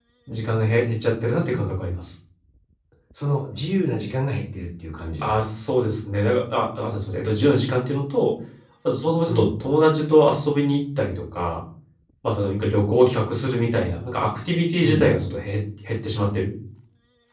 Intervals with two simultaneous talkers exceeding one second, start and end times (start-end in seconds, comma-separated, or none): none